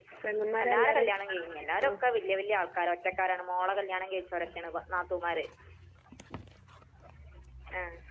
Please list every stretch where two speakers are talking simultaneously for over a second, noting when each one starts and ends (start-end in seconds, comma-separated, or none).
0.7-1.9